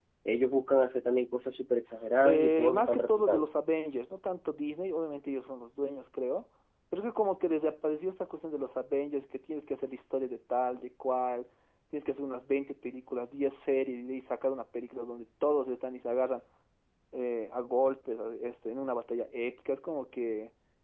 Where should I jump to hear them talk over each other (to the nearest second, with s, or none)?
2 s